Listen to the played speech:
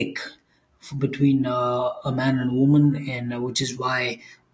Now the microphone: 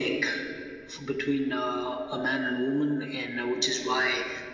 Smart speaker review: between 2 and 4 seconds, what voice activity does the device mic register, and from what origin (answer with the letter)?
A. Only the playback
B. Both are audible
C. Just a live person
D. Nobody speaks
A